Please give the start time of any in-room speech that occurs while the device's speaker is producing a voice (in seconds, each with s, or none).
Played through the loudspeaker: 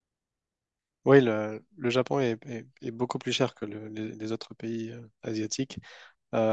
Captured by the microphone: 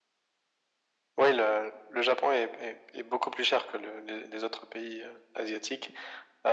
none